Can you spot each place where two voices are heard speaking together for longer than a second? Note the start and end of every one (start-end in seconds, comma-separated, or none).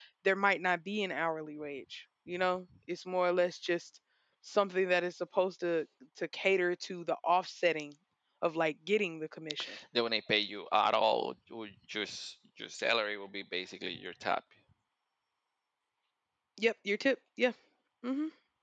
none